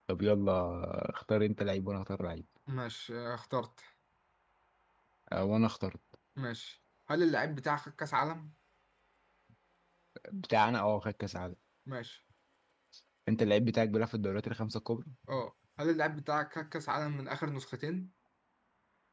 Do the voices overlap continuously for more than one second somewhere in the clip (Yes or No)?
No